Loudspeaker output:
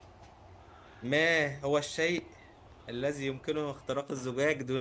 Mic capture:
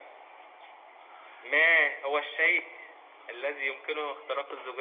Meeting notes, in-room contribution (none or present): none